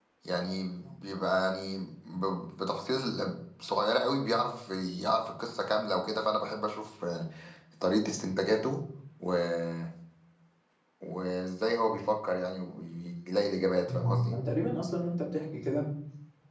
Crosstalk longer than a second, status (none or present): none